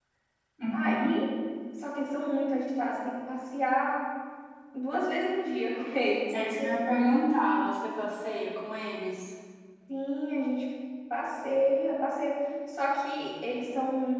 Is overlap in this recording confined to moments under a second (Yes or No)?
Yes